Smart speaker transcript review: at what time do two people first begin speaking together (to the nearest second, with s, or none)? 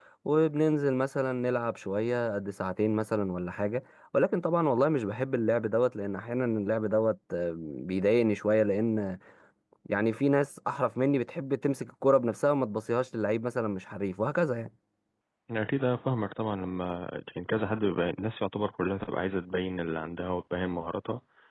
none